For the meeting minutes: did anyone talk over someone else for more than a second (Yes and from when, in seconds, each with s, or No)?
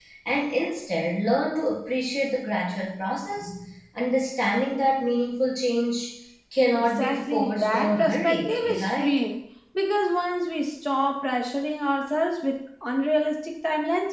Yes, from 6.7 s